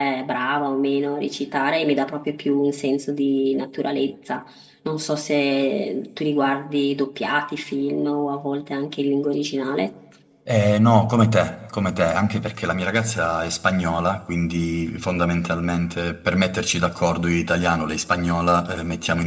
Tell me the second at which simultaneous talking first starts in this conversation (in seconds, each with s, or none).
none